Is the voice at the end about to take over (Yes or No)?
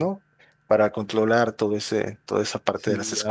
Yes